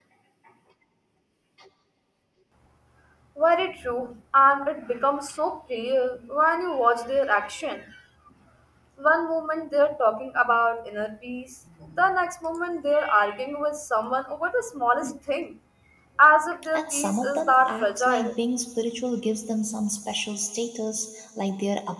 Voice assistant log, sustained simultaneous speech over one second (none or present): present